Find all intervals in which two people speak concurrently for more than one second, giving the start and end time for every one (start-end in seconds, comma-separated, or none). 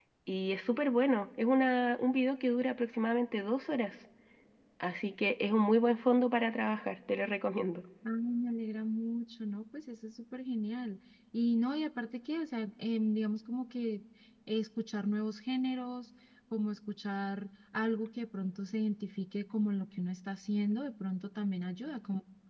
none